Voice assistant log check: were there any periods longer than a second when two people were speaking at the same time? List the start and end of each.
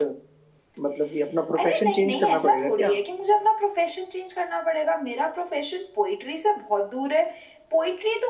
1.6-2.9

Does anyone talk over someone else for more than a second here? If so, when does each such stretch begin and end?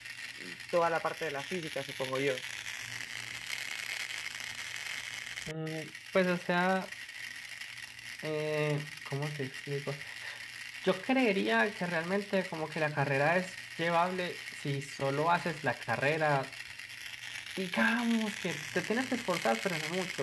none

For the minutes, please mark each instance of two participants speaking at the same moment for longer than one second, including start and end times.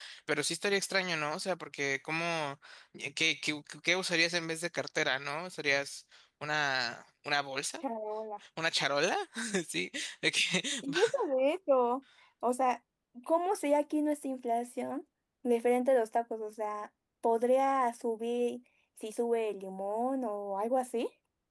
none

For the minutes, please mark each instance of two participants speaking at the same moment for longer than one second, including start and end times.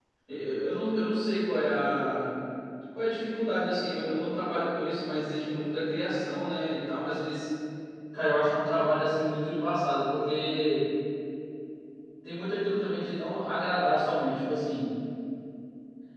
none

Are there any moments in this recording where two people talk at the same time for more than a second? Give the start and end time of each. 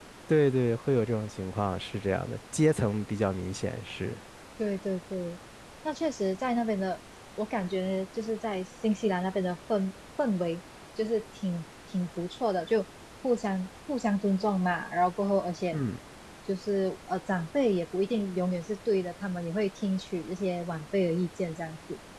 none

